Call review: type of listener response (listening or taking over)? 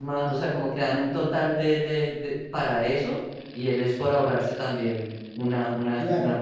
taking over